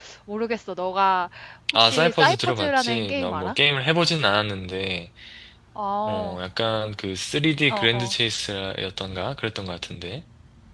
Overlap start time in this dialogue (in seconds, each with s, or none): 1.7 s